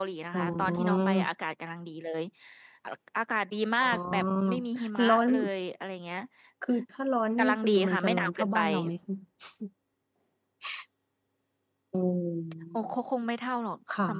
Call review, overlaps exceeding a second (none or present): present